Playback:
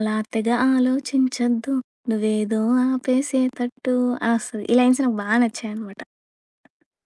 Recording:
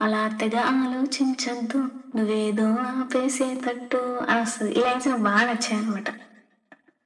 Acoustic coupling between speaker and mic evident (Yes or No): Yes